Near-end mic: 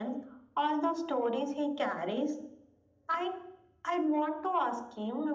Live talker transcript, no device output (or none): none